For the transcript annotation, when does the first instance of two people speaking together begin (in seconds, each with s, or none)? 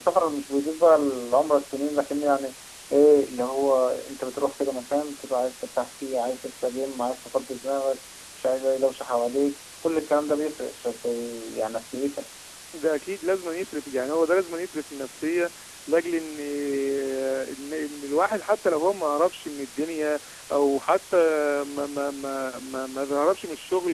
none